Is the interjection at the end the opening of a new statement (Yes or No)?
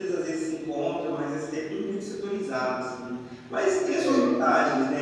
No